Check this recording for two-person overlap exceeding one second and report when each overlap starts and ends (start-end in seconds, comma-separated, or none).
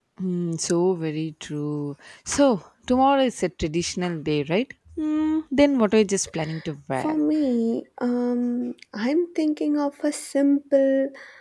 none